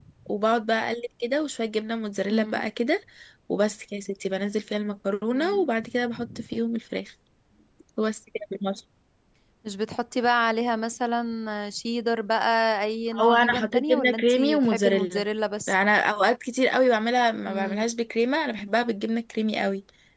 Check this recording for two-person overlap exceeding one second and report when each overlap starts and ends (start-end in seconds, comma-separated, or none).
13.2-15.2